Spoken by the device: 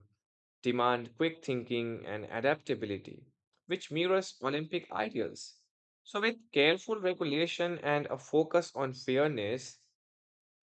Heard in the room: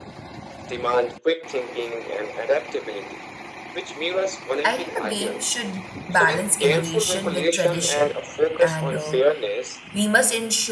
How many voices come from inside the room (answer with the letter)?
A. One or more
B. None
A